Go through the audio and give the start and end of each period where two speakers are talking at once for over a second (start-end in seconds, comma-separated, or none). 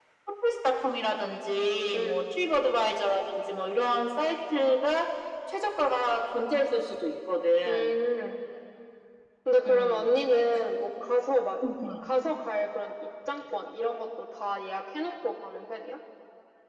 none